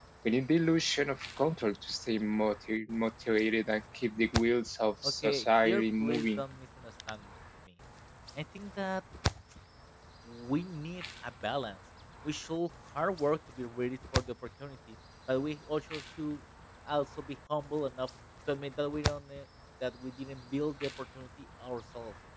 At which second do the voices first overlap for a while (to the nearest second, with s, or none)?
5 s